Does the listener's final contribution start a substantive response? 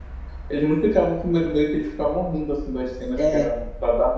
No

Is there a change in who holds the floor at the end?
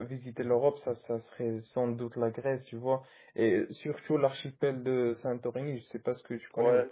Yes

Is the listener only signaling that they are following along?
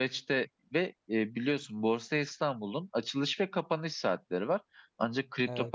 Yes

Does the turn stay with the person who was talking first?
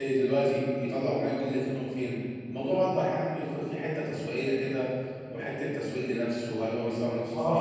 No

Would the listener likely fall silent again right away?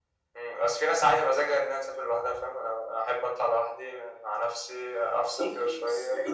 No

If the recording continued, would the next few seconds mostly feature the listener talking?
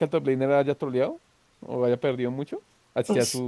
Yes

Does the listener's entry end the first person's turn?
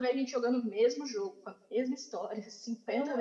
Yes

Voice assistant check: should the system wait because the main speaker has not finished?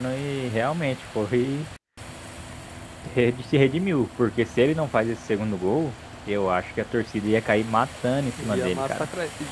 No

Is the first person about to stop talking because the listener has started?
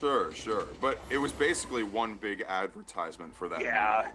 Yes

